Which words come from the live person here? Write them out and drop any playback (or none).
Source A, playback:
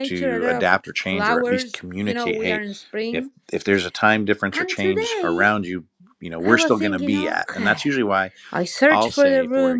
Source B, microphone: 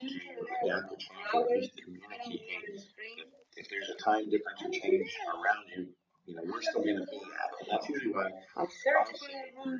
none